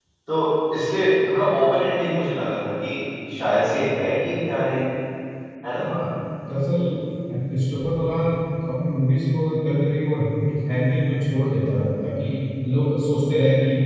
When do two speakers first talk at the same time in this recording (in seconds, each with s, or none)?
none